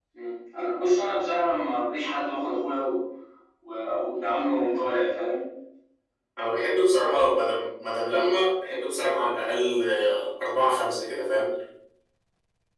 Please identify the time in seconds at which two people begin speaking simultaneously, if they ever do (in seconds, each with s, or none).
none